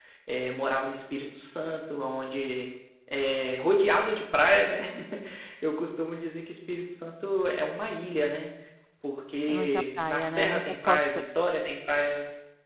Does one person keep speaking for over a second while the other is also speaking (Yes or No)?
Yes